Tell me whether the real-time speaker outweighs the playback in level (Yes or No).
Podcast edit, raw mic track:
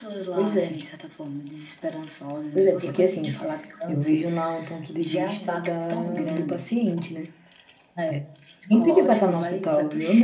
Yes